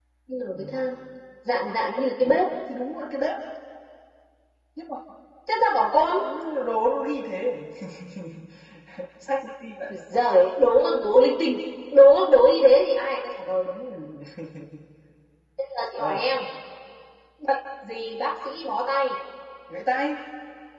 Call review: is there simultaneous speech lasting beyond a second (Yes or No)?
No